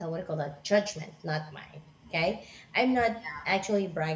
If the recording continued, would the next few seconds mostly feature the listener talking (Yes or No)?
No